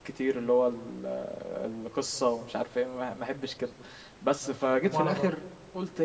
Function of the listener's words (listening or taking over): listening